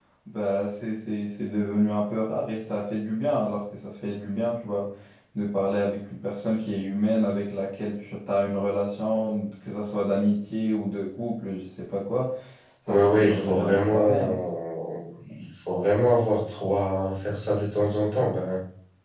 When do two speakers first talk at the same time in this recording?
12.9 s

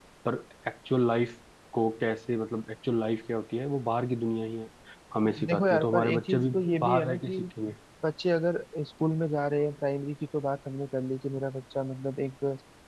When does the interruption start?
5.2 s

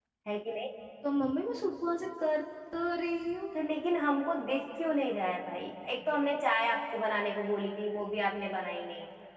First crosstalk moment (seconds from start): none

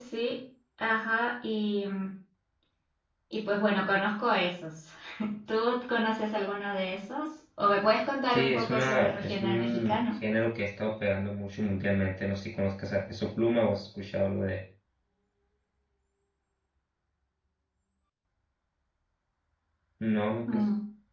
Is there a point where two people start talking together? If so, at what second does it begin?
8.3 s

